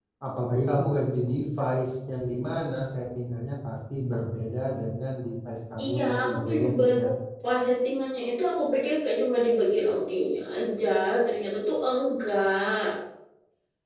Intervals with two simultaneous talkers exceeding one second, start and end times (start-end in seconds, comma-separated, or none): 5.8-7.0